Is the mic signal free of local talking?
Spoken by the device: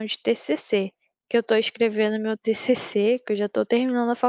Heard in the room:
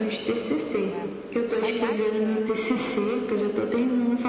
No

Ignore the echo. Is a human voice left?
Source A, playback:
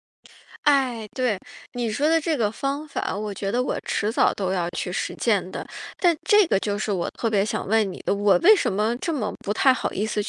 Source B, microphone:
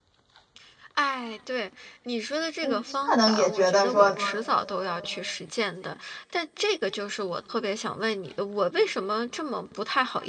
Yes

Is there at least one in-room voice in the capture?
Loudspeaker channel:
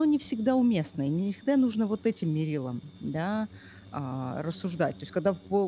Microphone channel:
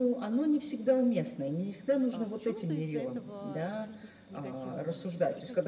Yes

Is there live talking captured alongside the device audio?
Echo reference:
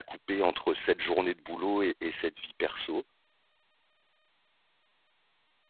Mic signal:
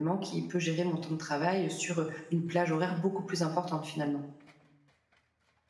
Yes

